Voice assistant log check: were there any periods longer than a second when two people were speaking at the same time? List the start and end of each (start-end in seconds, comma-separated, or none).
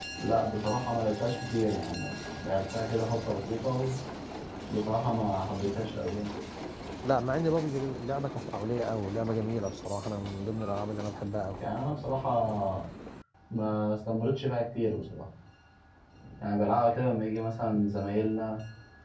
none